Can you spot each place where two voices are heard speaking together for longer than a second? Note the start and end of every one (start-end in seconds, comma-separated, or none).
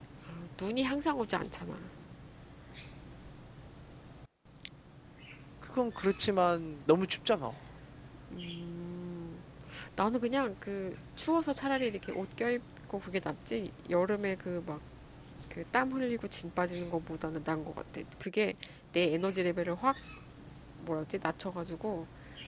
none